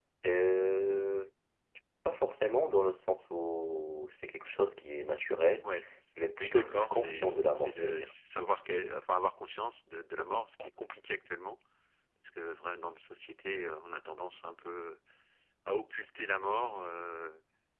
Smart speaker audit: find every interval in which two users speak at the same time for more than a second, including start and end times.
6.4-8.1

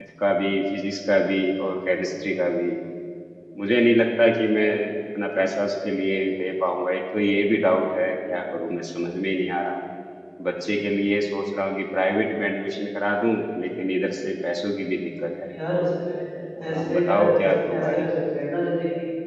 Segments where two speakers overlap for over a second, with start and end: 16.7-18.1

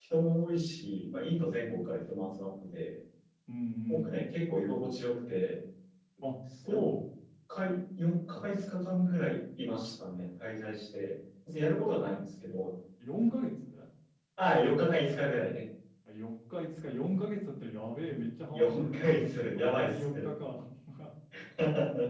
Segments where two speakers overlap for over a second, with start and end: 18.5-20.3

